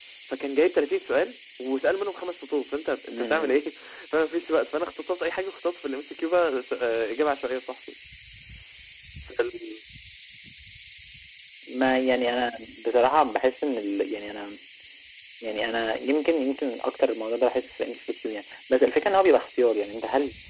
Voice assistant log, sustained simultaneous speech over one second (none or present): none